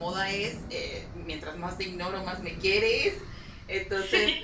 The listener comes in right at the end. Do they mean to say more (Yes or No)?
No